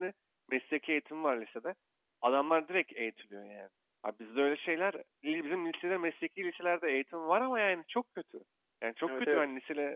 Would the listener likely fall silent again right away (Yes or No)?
Yes